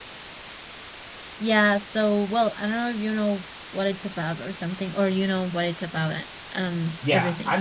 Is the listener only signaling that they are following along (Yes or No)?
No